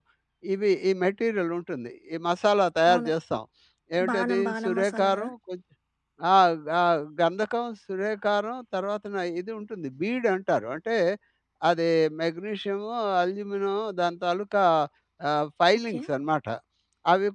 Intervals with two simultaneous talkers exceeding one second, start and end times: 4.1-5.3

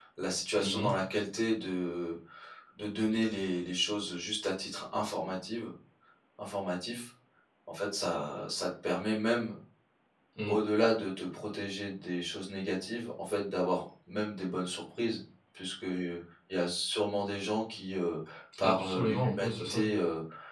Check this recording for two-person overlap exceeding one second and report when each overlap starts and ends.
18.6-19.8

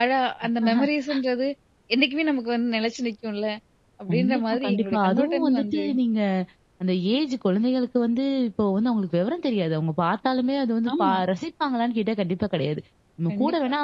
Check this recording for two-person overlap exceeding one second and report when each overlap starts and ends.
4.1-5.8

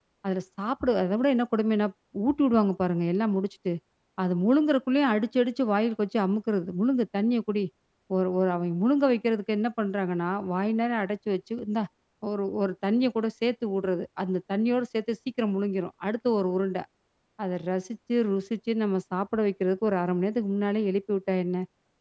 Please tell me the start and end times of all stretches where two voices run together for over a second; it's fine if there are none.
none

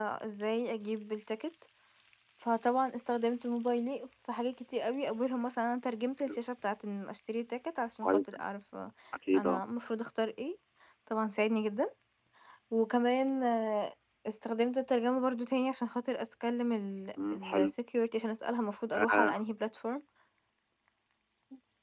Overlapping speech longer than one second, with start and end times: none

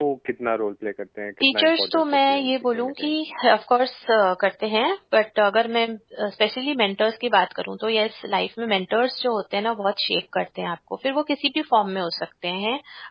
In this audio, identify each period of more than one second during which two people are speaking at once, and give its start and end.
1.4-3.1

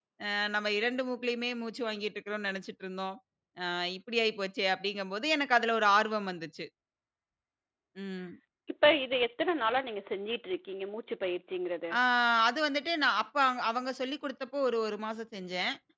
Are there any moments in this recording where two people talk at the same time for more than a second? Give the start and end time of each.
none

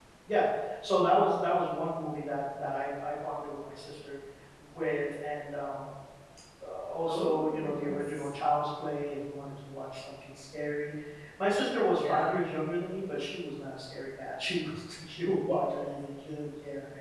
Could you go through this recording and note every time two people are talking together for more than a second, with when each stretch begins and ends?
7.1-8.3

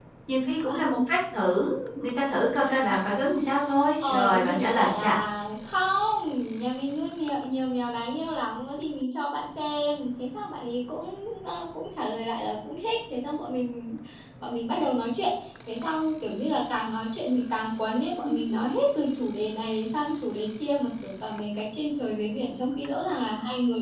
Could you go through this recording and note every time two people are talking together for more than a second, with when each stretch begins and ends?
4.0-5.2

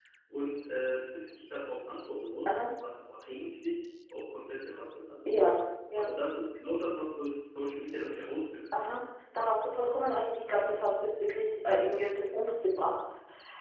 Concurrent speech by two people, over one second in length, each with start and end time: none

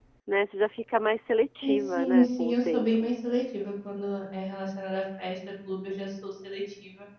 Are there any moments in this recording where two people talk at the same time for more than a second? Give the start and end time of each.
1.6-3.1

